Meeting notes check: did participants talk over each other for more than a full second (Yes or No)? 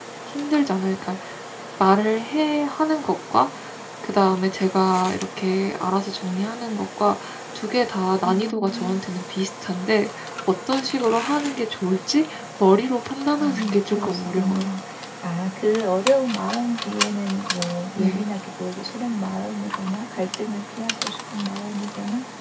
Yes